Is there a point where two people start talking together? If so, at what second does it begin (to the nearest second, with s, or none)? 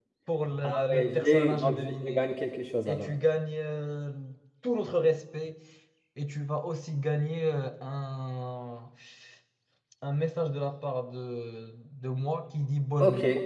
1 s